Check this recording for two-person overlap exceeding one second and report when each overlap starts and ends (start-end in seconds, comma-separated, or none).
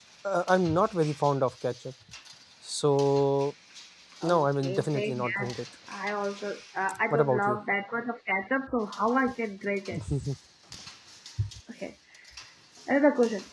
4.2-5.5